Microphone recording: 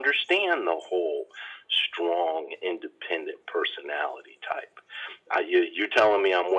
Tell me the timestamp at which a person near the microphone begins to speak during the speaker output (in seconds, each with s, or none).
none